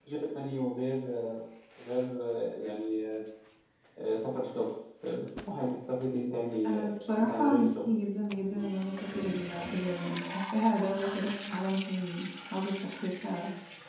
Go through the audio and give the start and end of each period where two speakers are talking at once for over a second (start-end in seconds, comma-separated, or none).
6.6-7.9